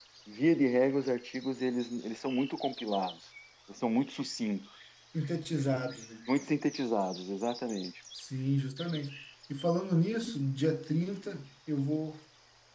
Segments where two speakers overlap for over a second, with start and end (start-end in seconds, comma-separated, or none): none